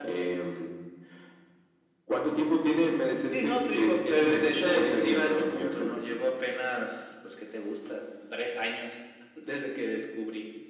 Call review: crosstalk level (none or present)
present